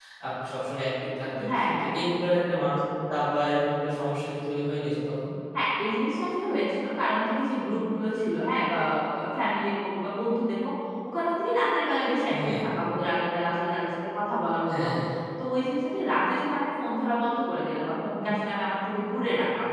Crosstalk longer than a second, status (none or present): none